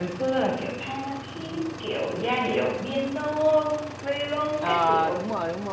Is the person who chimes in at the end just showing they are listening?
No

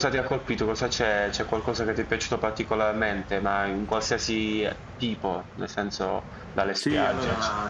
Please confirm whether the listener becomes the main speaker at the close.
Yes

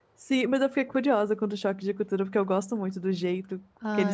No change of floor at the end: No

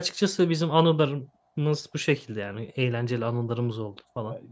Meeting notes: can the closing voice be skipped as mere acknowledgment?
No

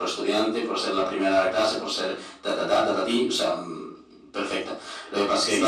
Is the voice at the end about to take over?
Yes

